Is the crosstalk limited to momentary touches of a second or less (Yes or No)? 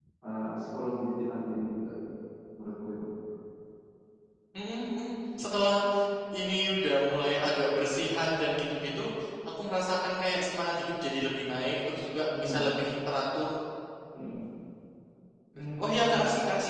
Yes